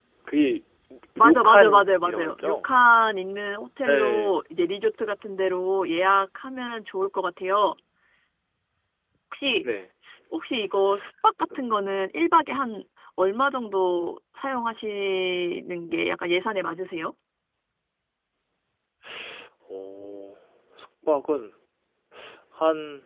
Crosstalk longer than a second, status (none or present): present